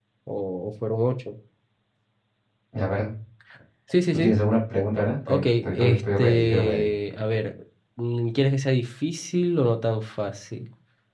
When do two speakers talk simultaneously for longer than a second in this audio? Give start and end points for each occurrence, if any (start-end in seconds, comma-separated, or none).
5.3-6.9